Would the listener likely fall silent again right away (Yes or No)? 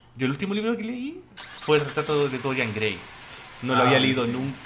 Yes